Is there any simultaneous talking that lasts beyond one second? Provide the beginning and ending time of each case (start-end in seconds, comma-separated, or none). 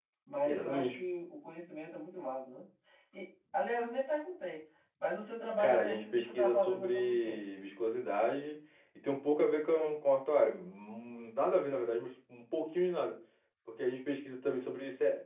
5.6-7.4